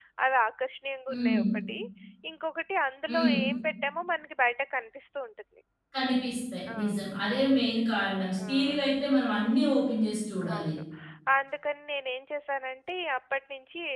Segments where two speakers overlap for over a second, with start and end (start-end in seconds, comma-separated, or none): none